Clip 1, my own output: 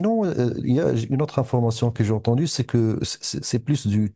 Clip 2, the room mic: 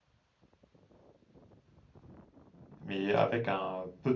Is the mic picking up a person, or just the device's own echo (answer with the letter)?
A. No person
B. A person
B